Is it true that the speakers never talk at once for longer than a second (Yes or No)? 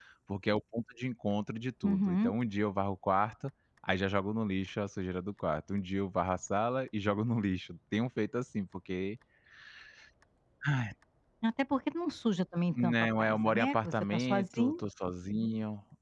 No